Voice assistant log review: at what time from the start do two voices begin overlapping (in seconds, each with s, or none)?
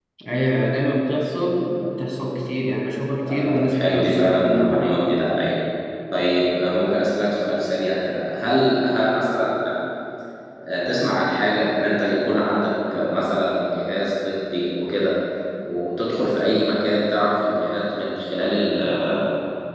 3.2 s